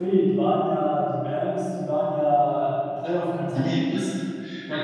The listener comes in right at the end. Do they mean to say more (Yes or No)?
No